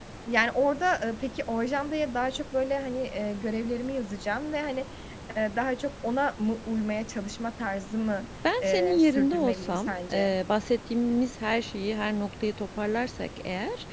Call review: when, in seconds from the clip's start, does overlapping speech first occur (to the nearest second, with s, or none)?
9 s